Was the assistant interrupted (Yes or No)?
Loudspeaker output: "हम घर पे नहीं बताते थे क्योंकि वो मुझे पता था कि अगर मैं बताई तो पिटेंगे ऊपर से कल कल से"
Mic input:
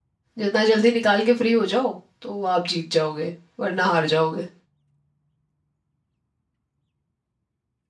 Yes